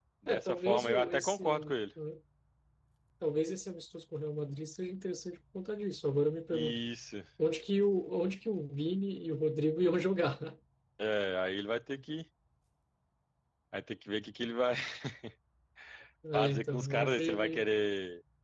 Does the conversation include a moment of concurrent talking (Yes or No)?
Yes